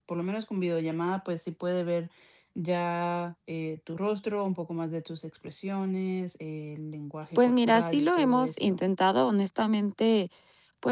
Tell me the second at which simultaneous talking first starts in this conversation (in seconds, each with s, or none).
7.4 s